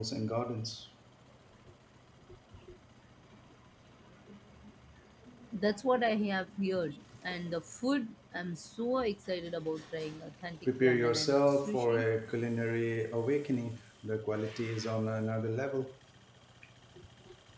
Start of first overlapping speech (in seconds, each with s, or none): 10.7 s